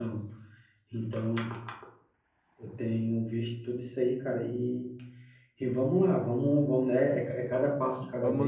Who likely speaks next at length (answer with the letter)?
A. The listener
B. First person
A